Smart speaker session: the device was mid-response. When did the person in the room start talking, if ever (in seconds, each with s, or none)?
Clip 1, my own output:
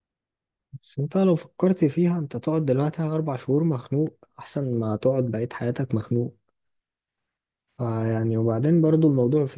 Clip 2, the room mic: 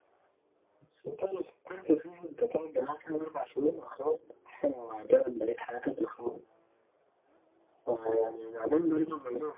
none